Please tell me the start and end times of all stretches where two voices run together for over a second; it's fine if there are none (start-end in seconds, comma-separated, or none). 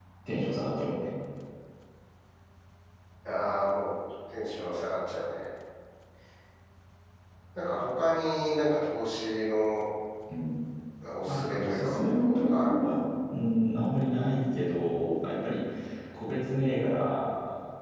11.3-12.8